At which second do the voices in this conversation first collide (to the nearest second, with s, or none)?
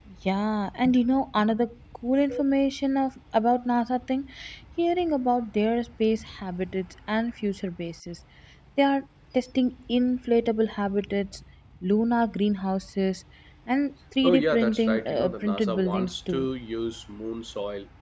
14 s